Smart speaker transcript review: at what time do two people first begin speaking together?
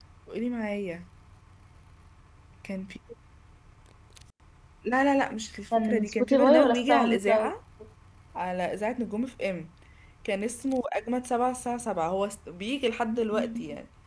5.8 s

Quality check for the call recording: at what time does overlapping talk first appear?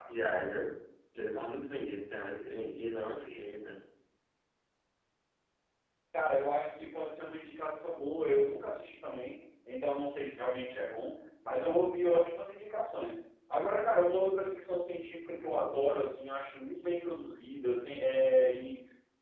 none

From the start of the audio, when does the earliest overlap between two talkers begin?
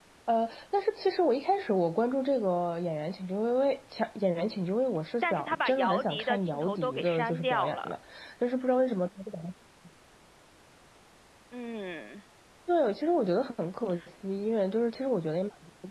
5.2 s

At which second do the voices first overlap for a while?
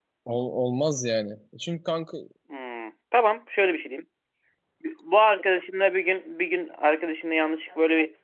none

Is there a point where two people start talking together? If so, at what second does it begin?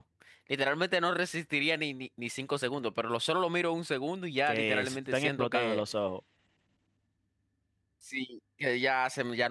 4.5 s

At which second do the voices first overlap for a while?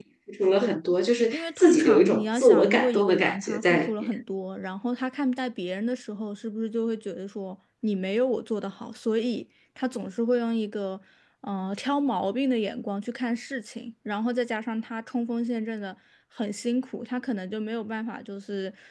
1.3 s

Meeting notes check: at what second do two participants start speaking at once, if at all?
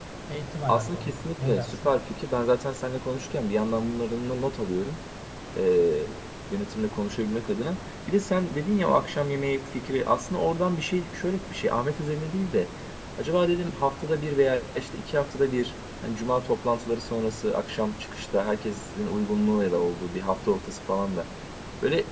0.7 s

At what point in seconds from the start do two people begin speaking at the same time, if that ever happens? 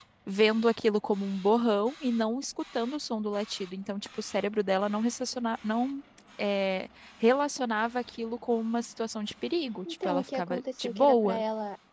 9.8 s

